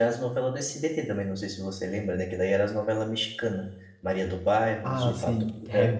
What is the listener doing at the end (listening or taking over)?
taking over